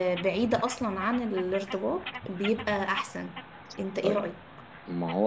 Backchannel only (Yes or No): No